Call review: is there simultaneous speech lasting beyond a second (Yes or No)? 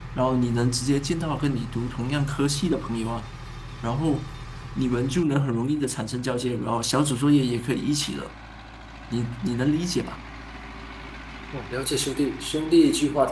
No